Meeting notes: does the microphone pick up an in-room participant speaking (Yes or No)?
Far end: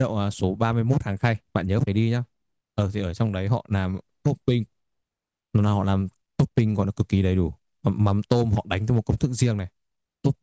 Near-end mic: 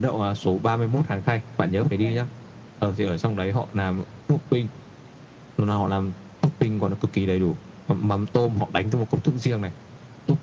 Yes